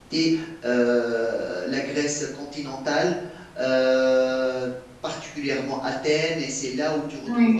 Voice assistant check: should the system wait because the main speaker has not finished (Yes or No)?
Yes